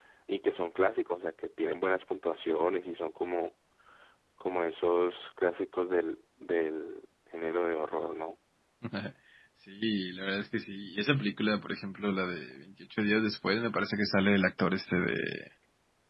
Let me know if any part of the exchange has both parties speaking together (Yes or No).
No